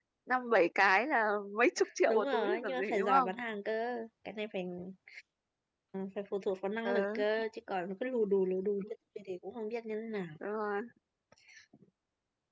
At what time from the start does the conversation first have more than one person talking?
2.1 s

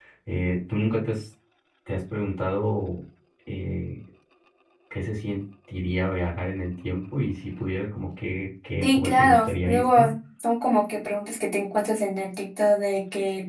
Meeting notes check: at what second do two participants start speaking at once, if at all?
8.8 s

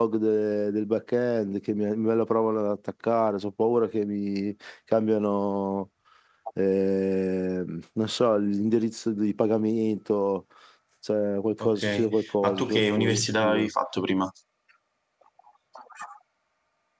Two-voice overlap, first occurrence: 11.6 s

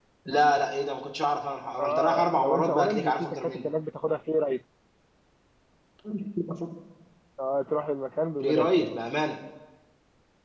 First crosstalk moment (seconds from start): 1.8 s

